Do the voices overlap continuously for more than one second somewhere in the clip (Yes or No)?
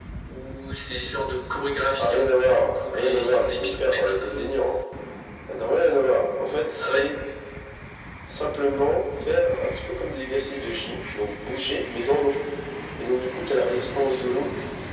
Yes